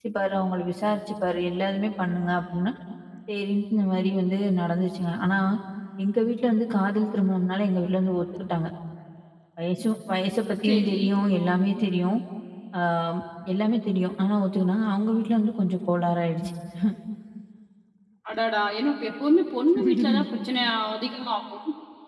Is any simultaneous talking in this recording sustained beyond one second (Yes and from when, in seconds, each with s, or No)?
No